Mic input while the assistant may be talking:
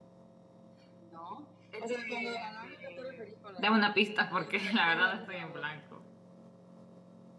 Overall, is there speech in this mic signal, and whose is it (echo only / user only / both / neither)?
both